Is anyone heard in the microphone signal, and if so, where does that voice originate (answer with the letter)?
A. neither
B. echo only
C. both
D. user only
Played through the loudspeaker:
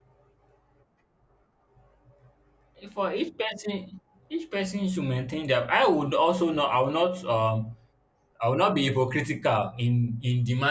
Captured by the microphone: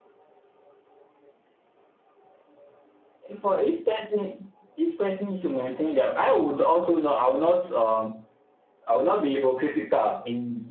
B